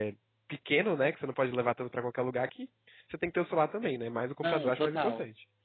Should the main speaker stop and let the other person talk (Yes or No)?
Yes